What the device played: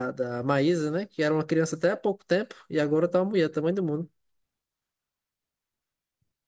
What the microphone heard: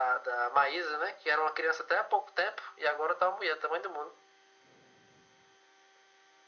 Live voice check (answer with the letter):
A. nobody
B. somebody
A